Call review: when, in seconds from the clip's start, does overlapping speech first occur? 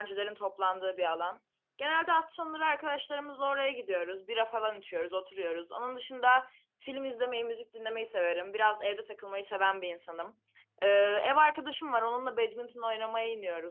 none

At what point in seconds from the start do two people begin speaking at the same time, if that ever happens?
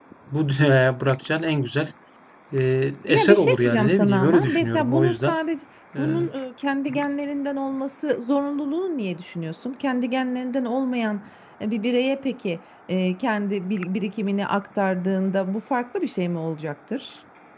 3.1 s

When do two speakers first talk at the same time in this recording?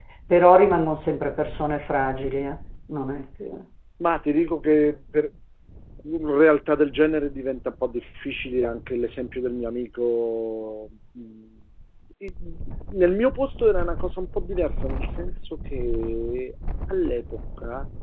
none

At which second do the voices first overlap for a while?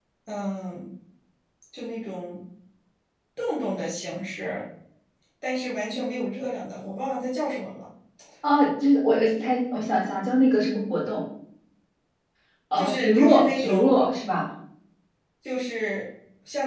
12.8 s

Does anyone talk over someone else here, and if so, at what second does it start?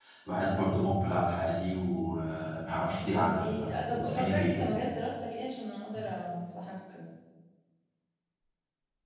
2.8 s

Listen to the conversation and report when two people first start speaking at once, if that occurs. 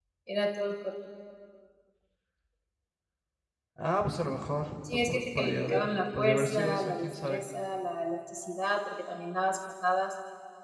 4.8 s

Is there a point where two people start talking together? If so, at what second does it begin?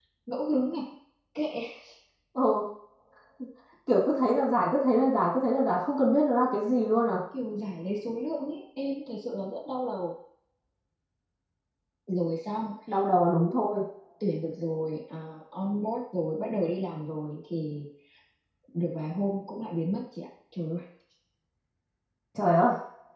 none

